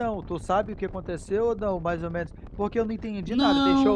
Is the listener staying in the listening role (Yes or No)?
Yes